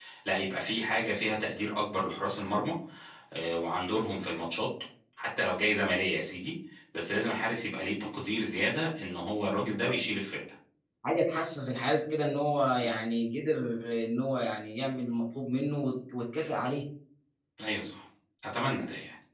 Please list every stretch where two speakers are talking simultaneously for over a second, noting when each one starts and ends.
none

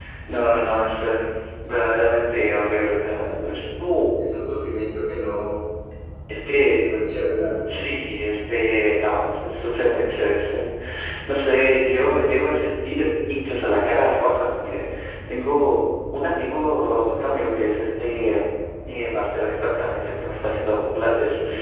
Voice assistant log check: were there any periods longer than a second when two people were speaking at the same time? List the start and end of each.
none

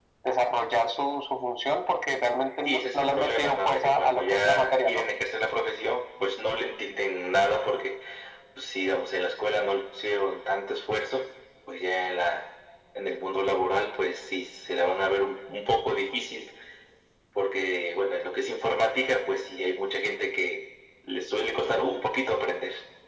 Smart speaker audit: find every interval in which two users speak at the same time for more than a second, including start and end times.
2.6-5.0

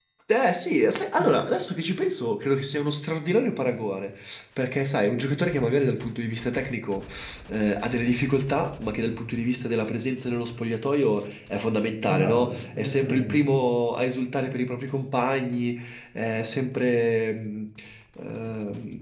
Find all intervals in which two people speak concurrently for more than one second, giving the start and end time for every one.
12.1-13.4

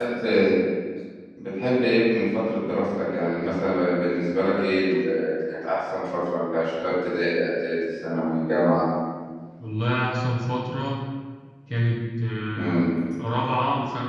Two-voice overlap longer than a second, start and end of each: none

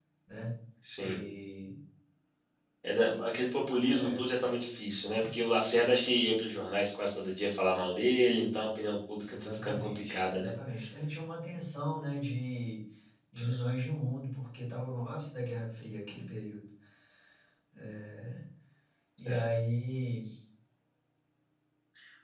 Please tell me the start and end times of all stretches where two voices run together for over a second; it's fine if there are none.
9.3-10.5

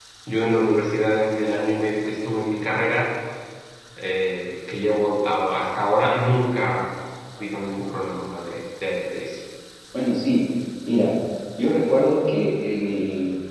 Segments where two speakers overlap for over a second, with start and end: none

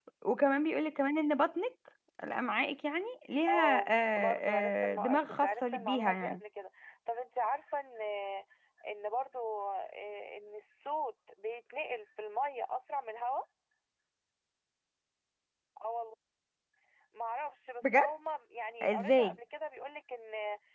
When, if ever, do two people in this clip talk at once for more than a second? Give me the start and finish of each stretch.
3.5-6.4

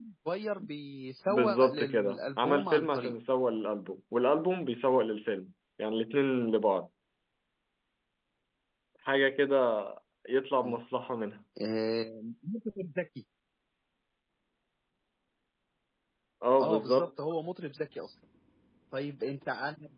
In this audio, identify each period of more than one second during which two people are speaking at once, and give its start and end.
1.3-3.1

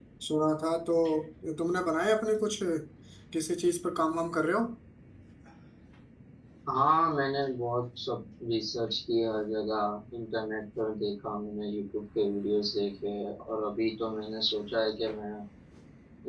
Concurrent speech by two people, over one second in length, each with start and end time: none

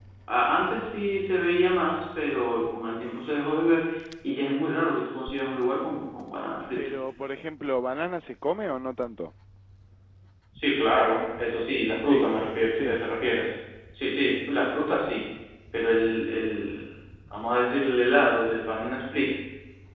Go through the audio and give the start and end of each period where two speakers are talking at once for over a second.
none

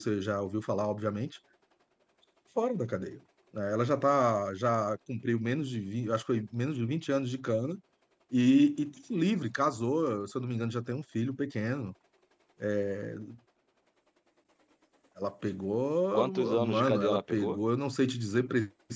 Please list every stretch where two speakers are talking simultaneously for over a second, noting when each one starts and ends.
16.1-17.6

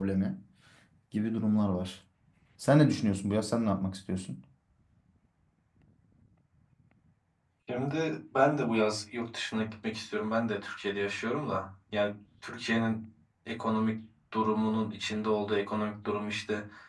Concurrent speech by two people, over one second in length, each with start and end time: none

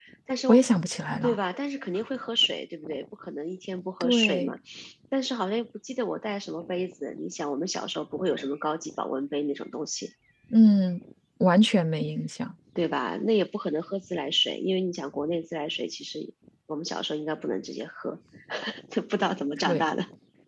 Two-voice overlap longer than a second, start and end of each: none

